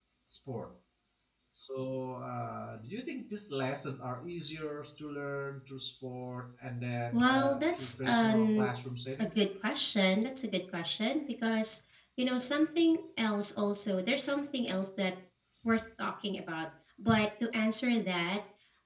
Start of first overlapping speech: 7.1 s

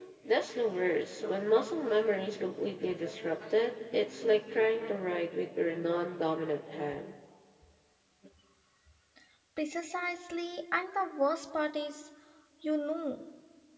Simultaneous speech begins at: none

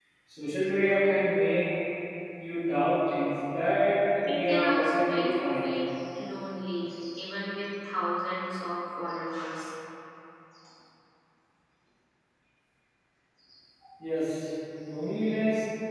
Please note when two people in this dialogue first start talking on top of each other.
4.2 s

